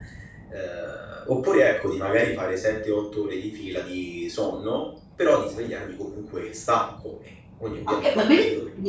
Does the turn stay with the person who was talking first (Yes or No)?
No